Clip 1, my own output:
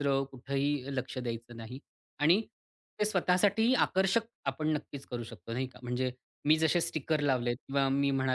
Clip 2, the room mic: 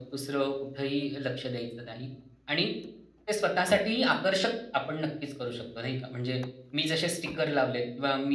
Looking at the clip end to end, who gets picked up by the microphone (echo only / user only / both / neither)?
echo only